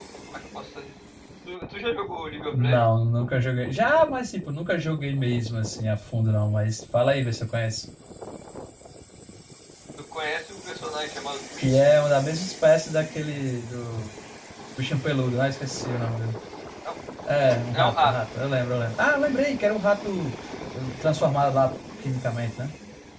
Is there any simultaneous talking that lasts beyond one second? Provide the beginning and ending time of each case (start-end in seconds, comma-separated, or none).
none